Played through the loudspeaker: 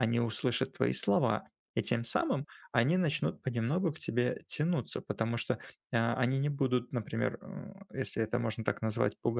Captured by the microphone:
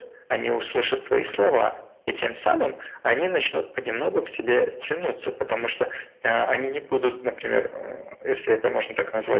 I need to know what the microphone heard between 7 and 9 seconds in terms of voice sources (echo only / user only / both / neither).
echo only